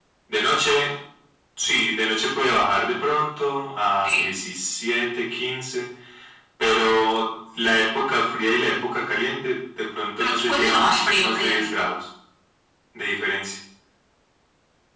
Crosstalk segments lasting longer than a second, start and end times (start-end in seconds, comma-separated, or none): 10.2-11.8